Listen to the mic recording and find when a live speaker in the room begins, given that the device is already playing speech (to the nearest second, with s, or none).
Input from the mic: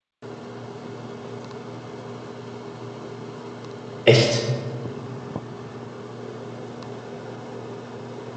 4 s